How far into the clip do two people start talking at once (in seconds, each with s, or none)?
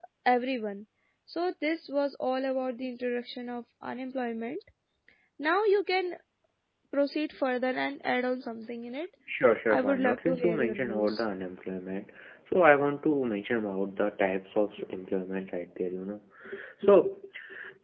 9.7 s